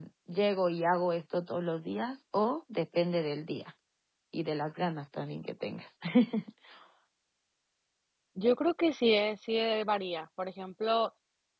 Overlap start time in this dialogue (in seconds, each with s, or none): none